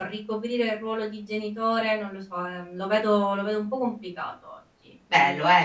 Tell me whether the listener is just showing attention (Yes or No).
No